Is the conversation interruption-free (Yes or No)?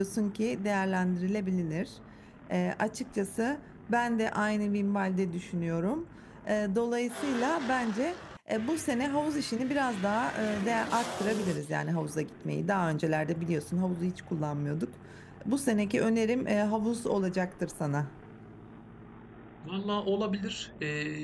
Yes